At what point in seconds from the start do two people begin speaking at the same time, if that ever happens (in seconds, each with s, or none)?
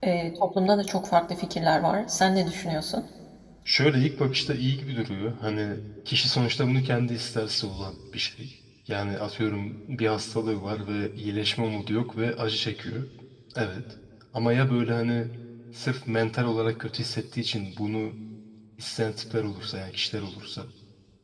none